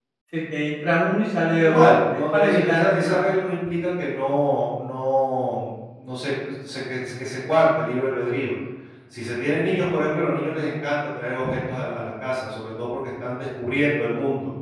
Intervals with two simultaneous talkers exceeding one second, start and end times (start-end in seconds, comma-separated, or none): 1.6-3.2